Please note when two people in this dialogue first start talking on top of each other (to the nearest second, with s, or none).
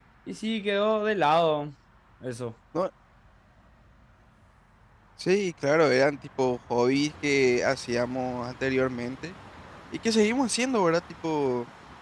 none